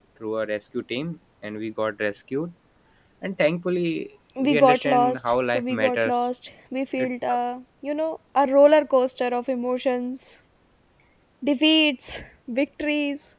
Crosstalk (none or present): present